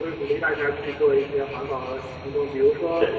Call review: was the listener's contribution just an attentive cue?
Yes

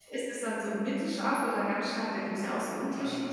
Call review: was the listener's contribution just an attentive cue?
No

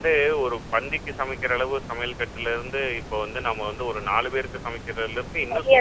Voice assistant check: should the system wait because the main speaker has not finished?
No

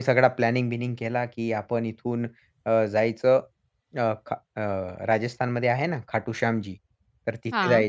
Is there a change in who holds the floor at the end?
No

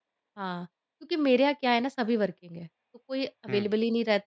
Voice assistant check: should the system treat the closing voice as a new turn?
No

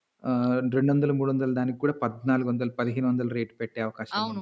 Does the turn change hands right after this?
Yes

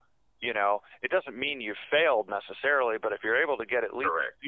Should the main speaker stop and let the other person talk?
No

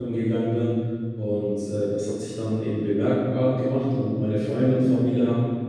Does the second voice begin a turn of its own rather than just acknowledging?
No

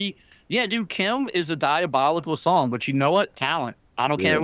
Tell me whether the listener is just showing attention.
Yes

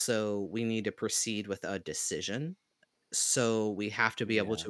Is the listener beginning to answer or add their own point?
No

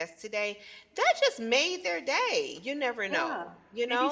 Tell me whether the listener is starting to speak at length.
Yes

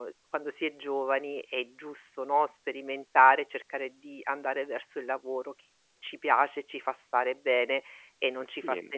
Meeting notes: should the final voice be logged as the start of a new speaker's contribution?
Yes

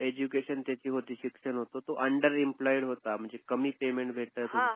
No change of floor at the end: No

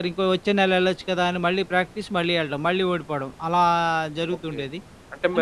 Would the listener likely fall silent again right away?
No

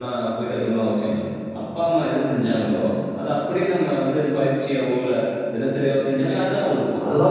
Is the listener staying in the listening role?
No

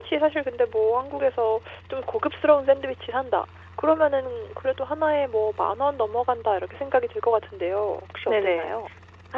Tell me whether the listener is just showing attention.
No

